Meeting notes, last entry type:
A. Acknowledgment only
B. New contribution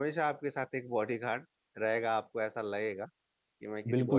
B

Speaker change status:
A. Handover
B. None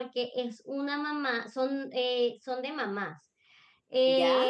B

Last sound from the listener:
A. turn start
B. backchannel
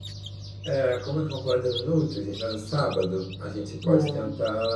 B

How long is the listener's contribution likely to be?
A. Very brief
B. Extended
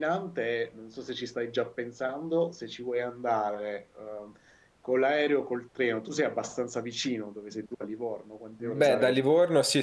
B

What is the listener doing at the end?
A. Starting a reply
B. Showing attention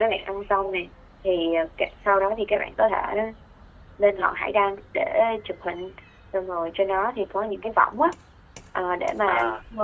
B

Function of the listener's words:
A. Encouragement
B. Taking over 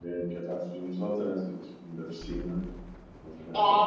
B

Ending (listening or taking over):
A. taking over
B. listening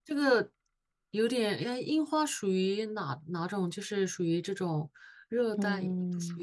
A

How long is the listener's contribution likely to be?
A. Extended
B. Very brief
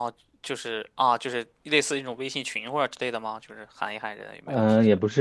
A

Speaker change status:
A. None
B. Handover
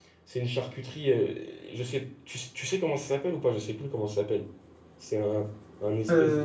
A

